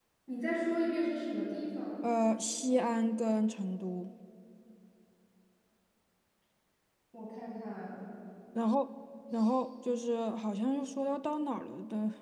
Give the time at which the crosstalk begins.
none

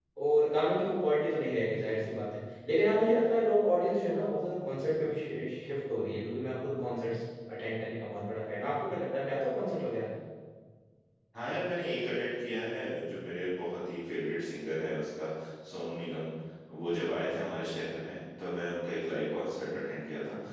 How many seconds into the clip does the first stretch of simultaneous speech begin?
none

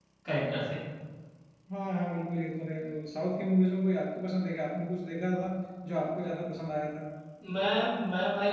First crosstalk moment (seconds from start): none

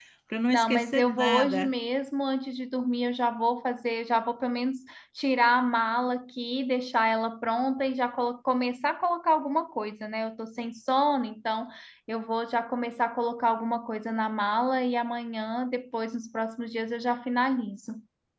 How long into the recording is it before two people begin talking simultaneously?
0.5 s

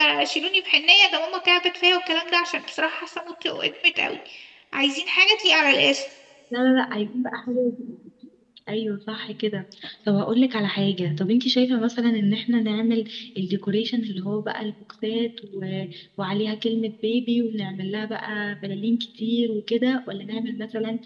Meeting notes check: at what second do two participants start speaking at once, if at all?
none

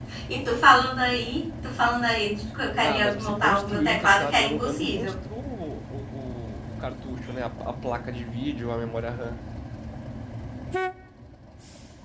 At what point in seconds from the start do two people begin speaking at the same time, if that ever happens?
2.8 s

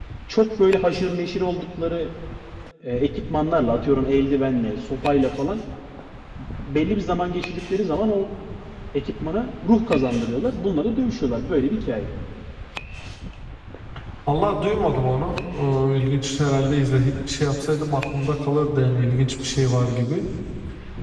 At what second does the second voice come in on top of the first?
none

